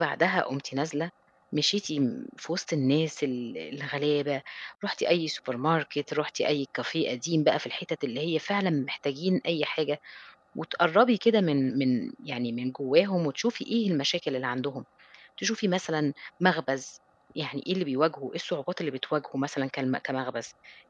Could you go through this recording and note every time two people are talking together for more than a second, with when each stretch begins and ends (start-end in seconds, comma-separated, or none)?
none